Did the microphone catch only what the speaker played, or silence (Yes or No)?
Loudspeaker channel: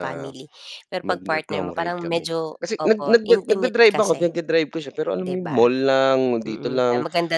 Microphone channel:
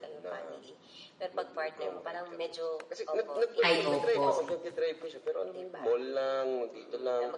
No